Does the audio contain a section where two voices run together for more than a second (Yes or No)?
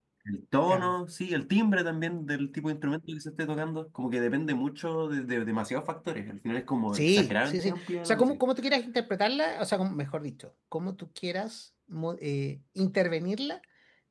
Yes